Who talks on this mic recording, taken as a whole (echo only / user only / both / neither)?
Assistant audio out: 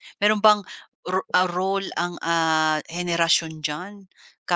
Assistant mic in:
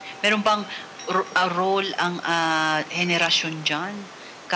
echo only